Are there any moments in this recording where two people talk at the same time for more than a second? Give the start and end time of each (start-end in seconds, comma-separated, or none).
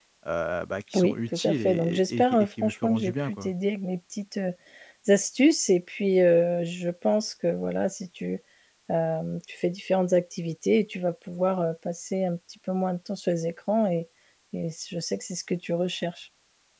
0.9-3.5